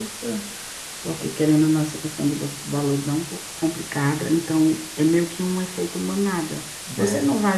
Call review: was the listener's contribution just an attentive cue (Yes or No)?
Yes